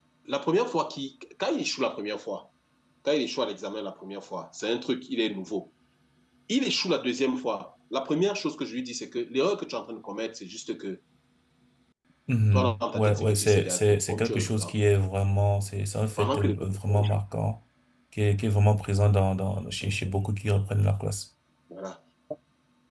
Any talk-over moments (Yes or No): Yes